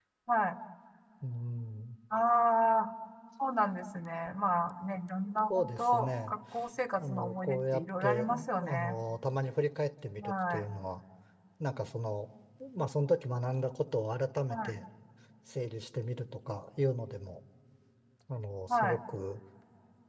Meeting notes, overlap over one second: present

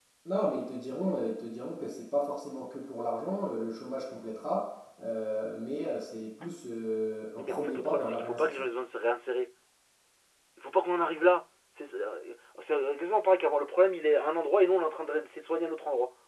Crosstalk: present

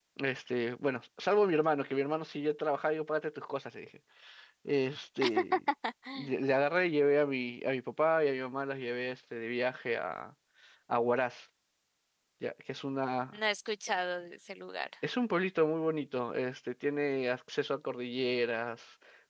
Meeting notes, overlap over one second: none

